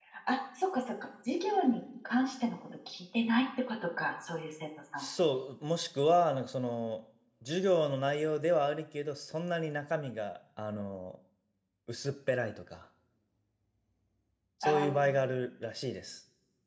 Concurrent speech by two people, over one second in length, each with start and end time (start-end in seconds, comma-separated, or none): none